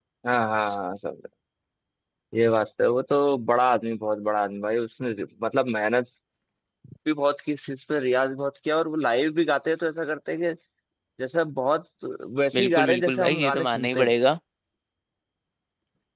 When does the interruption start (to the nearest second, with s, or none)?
13 s